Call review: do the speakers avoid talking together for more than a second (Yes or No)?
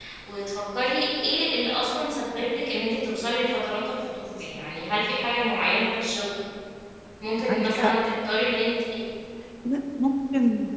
Yes